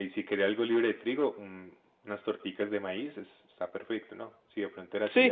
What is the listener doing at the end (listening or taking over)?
taking over